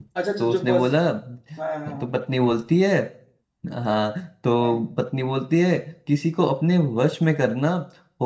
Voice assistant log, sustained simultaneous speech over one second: none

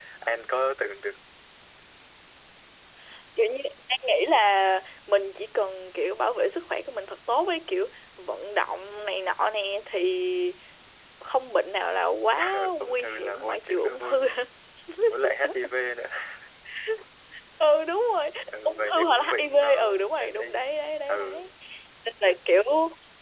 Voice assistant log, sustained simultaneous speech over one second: present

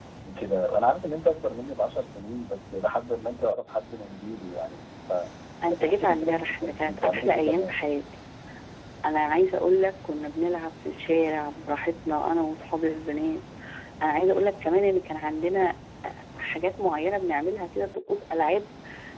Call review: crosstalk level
present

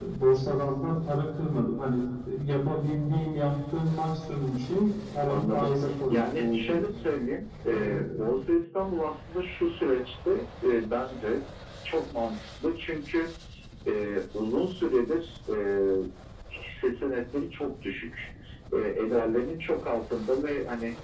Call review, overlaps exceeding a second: present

